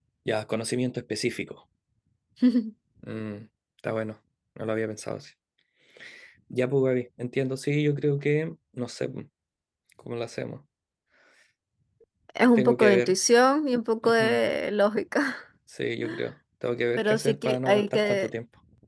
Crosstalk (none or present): present